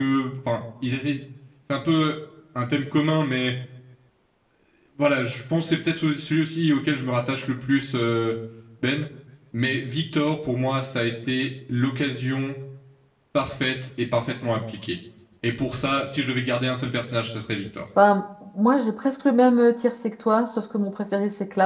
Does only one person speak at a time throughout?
Yes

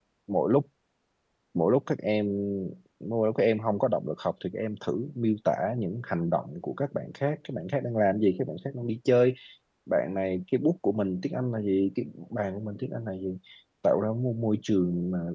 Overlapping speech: No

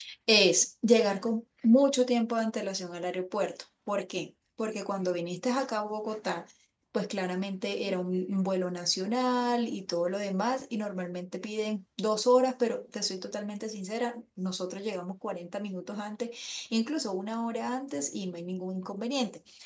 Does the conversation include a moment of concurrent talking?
No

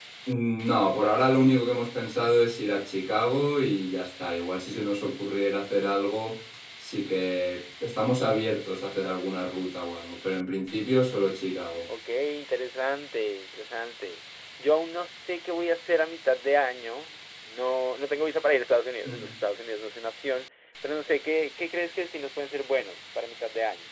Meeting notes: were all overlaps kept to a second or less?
Yes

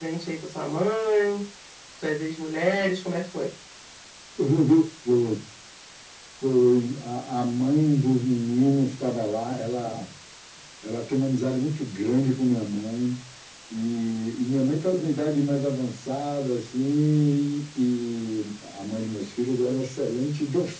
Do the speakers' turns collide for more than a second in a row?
No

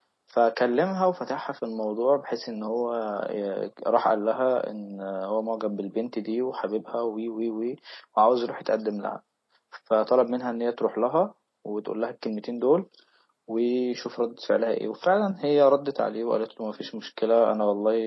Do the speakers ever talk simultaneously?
No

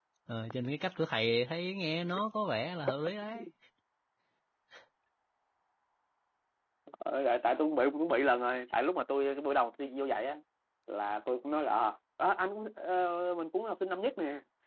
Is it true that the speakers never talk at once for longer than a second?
Yes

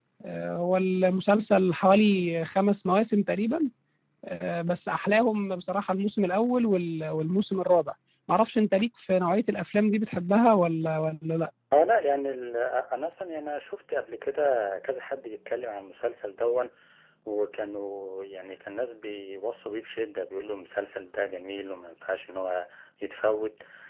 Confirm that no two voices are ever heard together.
Yes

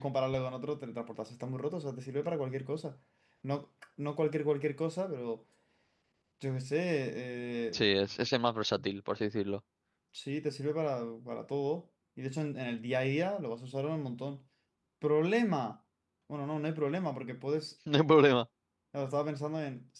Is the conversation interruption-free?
Yes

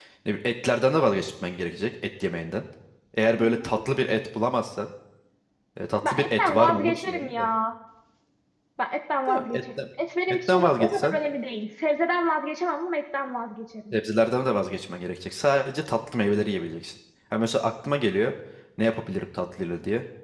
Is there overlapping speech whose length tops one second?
Yes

